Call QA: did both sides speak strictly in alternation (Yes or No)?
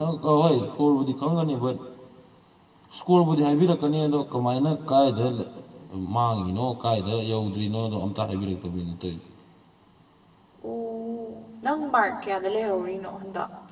Yes